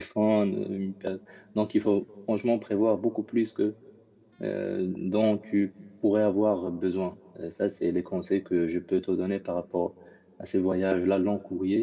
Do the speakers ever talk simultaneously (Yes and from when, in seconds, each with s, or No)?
No